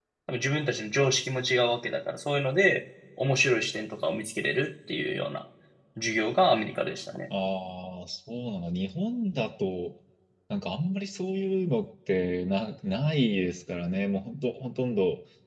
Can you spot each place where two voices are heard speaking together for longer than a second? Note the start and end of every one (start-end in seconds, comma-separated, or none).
none